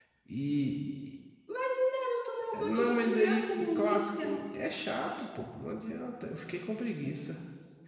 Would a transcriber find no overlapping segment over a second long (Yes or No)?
No